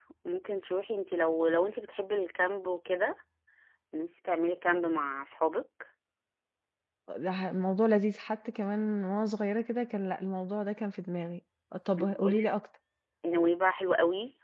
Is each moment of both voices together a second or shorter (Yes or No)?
Yes